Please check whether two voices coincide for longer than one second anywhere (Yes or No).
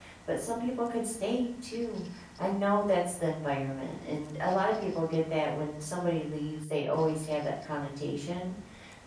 No